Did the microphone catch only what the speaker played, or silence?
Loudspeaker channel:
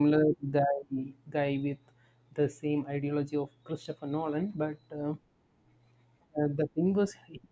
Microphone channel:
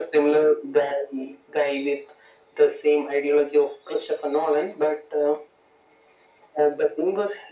Yes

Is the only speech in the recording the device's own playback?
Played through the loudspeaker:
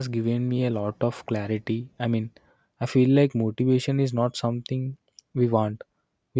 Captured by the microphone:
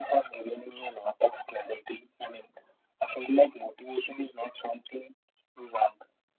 Yes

